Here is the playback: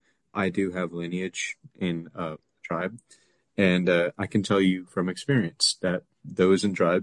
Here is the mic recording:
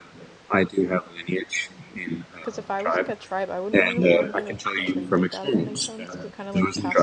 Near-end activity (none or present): present